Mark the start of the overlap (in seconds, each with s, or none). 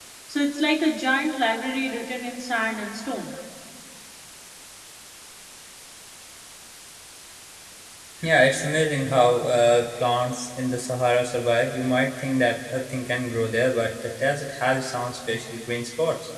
none